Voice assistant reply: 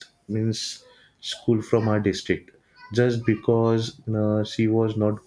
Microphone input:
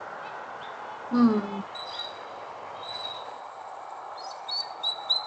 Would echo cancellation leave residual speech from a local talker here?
Yes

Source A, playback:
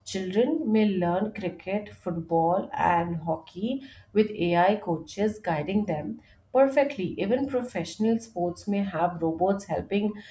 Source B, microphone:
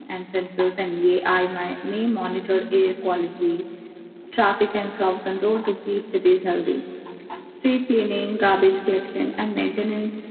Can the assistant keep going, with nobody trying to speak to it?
No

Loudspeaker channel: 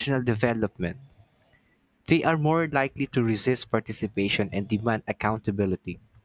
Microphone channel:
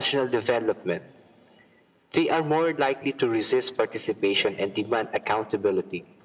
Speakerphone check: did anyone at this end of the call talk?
No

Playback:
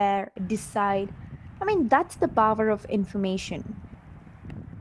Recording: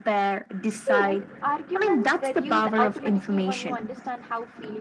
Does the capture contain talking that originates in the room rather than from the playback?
Yes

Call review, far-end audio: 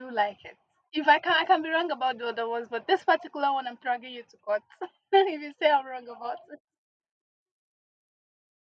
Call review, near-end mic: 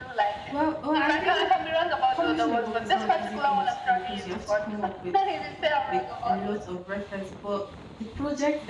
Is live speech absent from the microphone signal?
No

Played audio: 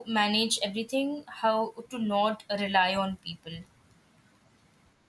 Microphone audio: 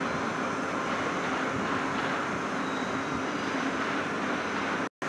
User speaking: No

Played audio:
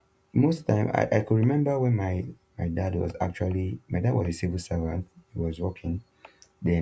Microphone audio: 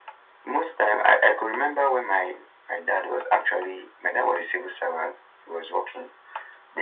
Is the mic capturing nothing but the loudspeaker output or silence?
Yes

